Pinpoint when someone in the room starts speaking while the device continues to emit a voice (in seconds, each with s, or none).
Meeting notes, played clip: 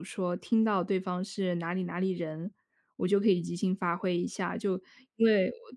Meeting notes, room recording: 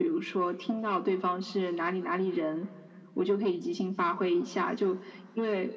none